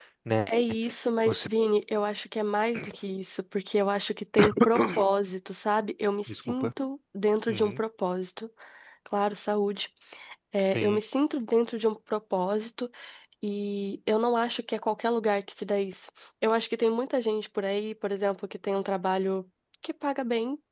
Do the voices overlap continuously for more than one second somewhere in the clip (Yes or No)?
No